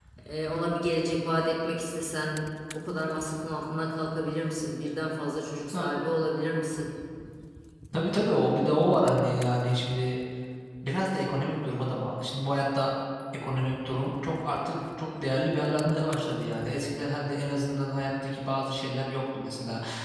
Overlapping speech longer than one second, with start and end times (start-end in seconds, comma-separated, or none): none